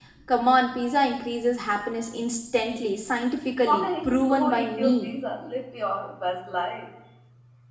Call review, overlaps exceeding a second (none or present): present